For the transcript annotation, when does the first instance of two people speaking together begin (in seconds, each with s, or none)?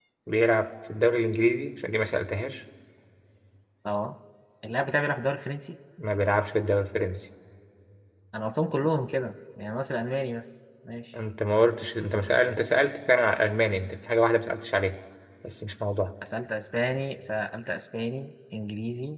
none